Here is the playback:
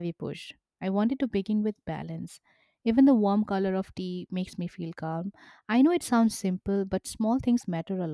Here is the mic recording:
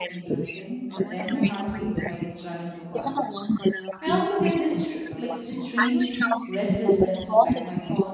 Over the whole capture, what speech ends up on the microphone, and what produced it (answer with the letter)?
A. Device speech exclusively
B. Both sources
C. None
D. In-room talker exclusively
B